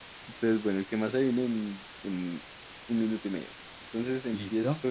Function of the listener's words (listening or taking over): listening